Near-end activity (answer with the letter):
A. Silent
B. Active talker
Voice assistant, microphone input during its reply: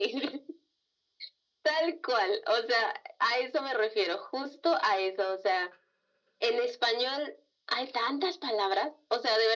A